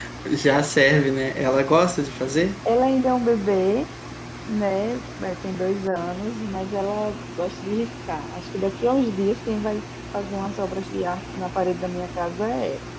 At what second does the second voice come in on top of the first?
none

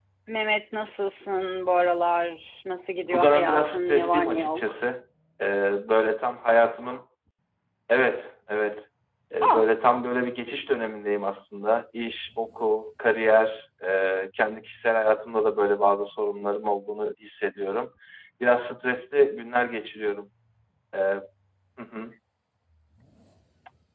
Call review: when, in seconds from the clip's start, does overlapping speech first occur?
3.0 s

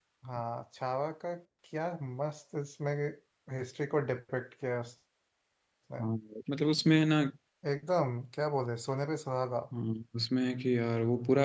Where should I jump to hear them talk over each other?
none

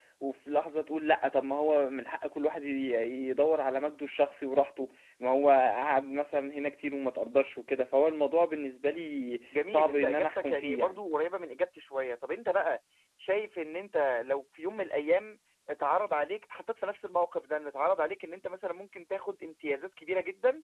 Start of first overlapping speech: 9.5 s

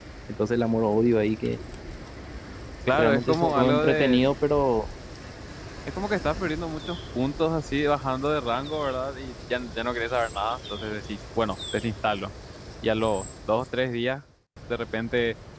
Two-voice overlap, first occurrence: 2.9 s

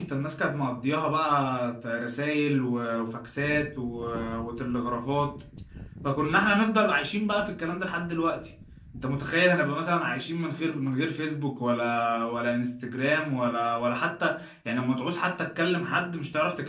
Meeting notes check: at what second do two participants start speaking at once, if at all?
none

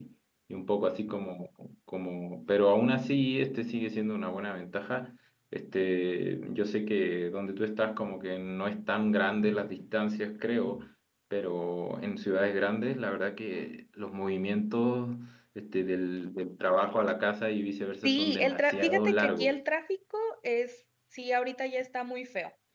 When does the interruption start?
18.0 s

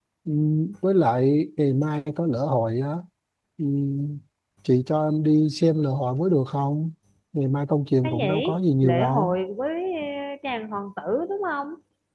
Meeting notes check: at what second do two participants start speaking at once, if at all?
8.0 s

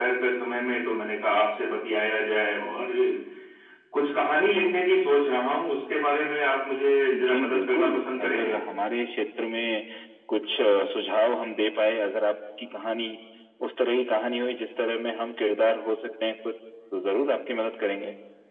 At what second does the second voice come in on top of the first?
7.1 s

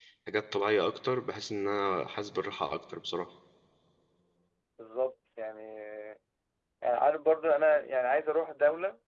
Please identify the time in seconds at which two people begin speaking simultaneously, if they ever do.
none

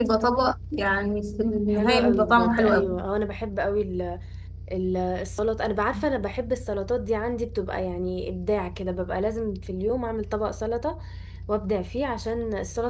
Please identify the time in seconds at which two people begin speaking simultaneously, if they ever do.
1.7 s

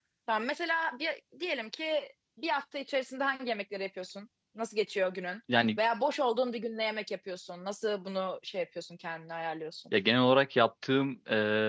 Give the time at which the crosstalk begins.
none

